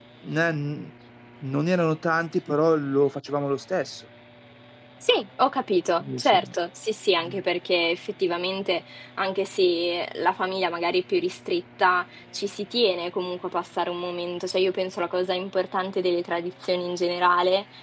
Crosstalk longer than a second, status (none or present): none